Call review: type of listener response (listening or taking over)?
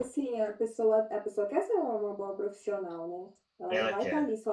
listening